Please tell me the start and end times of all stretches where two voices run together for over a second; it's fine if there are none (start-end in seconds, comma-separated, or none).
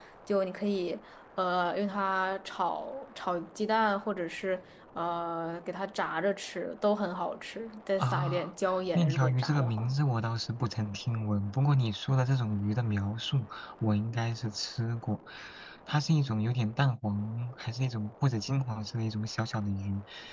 8.0-9.9